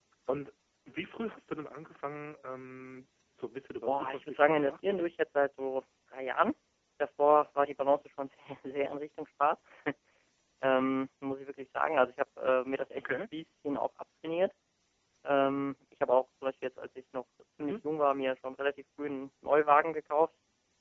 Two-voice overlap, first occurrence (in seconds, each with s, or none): 3.9 s